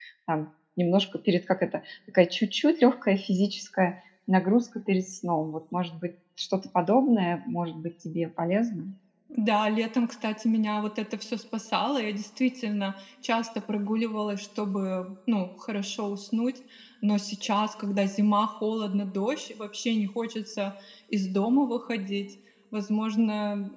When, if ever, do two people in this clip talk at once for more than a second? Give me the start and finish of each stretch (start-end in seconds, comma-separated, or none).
none